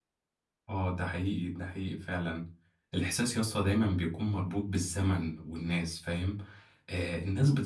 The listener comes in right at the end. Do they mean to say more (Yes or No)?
No